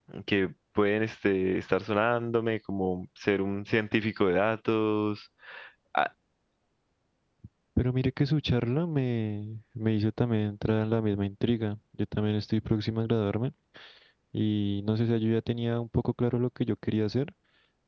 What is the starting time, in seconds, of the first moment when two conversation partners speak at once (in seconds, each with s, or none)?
none